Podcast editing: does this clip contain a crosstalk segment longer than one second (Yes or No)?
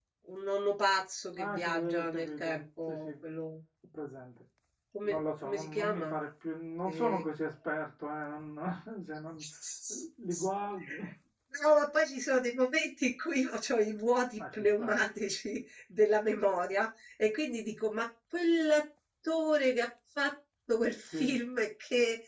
Yes